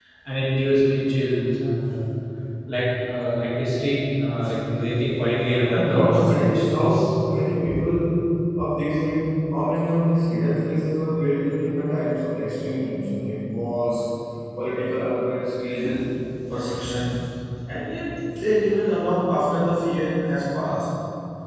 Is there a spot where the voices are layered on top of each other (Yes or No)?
Yes